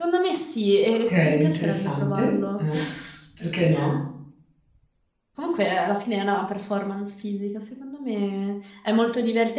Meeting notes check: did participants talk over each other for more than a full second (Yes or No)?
Yes